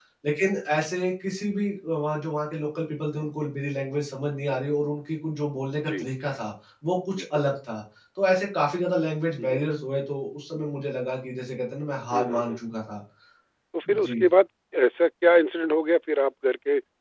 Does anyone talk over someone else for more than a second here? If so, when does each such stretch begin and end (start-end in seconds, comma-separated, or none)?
none